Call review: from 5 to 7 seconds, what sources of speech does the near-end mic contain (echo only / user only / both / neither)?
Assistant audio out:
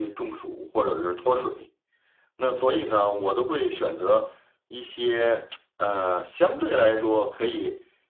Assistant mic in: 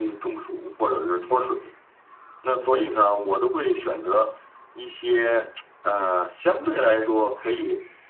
echo only